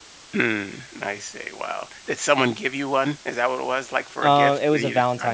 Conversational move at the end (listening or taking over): taking over